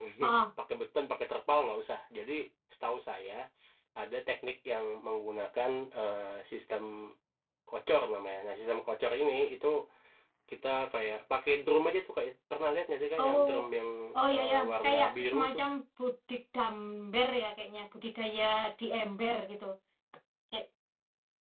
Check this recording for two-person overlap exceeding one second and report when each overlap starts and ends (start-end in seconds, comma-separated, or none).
14.3-15.6